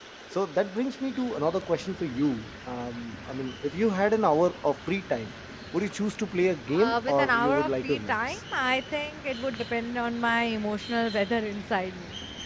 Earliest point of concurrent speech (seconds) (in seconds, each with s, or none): 6.7 s